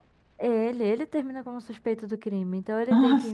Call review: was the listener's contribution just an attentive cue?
Yes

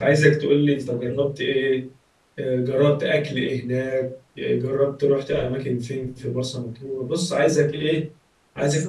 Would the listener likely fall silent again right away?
Yes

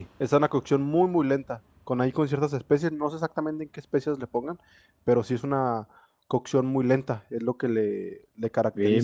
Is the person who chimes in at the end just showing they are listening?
No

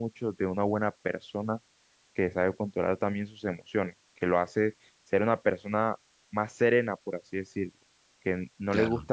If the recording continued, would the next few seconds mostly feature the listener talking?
No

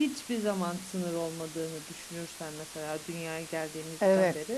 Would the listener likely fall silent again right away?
Yes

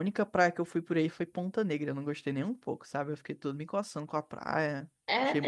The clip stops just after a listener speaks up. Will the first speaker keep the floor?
No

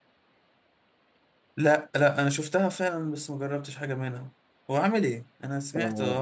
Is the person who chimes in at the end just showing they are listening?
No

